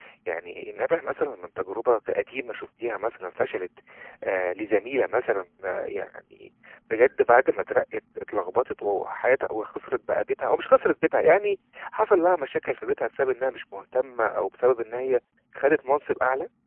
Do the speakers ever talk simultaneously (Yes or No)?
No